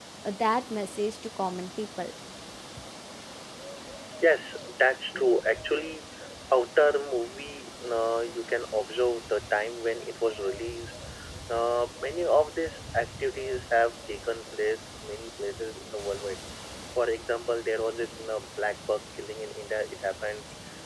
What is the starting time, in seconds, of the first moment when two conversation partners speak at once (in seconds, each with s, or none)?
none